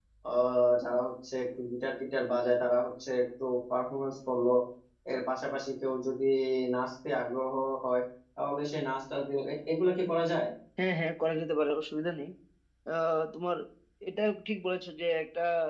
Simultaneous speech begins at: none

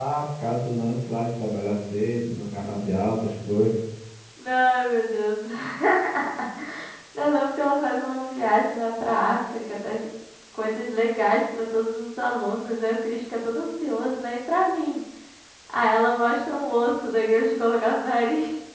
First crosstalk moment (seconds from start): none

